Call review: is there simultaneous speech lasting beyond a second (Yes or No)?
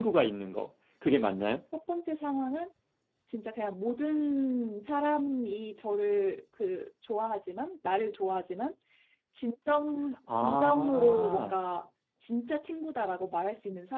Yes